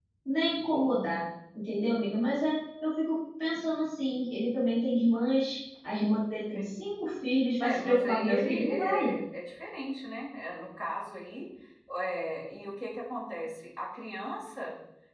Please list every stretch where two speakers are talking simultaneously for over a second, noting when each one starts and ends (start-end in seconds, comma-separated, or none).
7.6-9.1